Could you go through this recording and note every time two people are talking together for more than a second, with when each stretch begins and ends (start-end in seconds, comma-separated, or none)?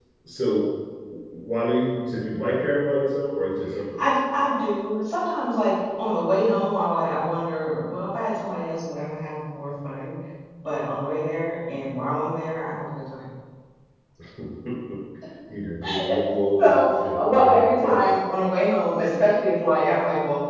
16.6-18.1